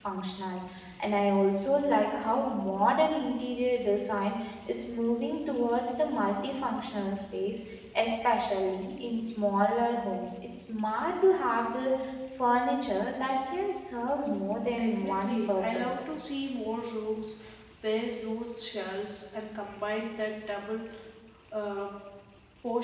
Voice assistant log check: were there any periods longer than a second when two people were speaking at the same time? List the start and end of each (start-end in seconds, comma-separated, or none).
14.7-16.0